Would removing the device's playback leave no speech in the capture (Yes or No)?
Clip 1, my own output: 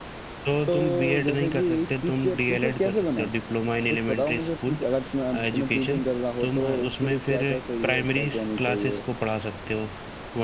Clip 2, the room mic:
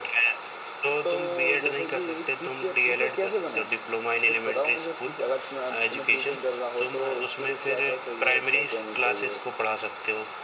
Yes